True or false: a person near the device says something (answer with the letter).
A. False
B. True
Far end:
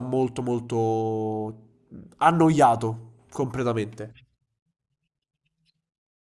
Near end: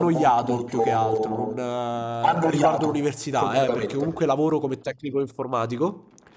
B